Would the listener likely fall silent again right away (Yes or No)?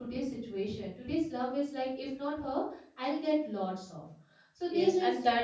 No